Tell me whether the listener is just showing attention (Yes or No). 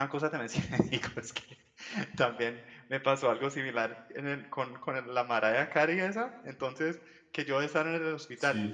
Yes